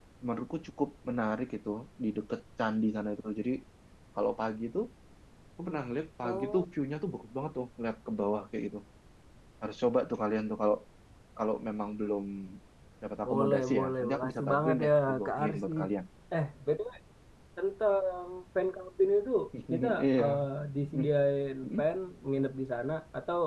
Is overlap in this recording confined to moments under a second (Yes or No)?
No